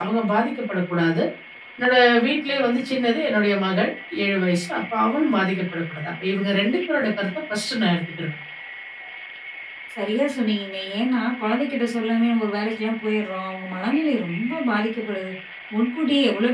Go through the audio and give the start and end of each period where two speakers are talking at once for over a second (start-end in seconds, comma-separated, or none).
none